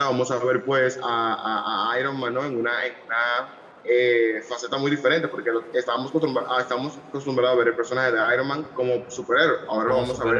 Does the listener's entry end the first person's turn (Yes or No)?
No